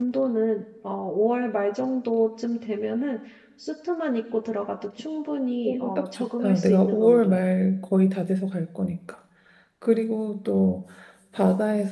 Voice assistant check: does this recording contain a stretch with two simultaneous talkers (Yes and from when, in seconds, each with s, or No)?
Yes, from 5.6 s